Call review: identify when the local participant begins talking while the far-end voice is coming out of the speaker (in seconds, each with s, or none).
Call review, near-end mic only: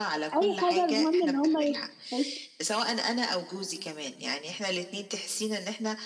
0.3 s